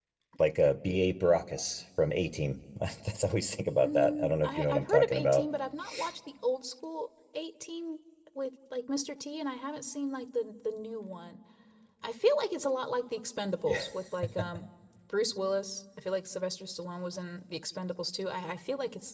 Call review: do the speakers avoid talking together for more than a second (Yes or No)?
No